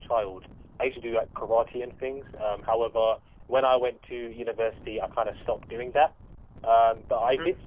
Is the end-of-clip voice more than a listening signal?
No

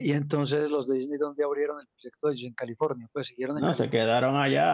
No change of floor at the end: No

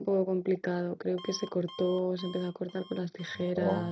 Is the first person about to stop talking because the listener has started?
No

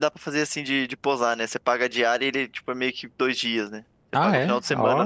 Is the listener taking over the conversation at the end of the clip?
Yes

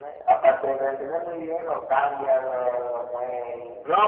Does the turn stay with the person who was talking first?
No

